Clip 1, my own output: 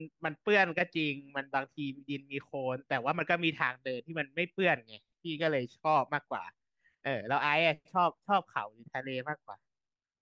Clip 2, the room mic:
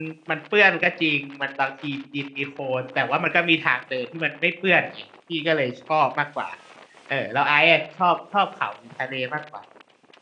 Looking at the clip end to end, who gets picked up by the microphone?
echo only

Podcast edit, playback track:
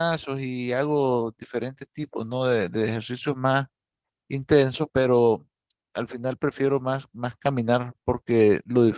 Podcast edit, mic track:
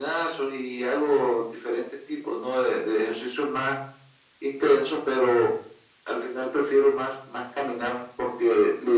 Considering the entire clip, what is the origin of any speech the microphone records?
echo only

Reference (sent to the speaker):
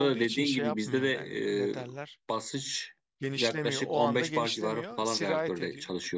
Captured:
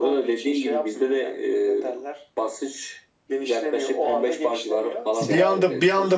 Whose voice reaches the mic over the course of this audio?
both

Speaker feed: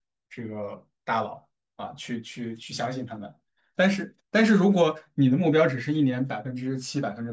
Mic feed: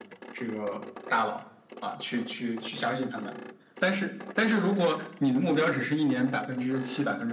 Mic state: echo only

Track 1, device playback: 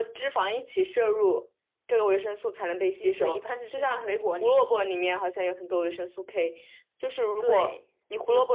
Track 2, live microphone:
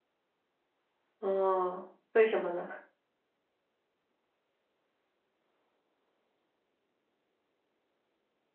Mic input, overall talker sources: user only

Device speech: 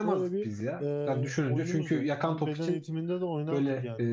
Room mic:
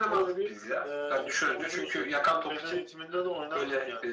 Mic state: echo only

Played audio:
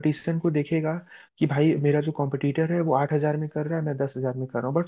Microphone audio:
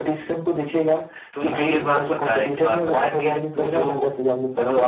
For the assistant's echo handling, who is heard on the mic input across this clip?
both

